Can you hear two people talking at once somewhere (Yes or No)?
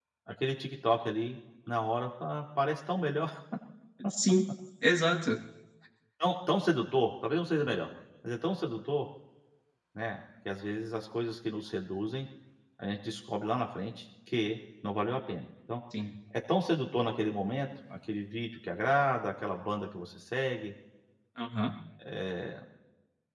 No